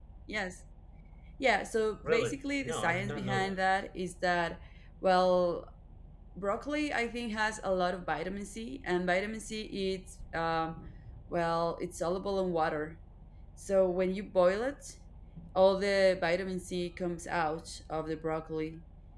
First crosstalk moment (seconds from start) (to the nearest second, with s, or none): 2 s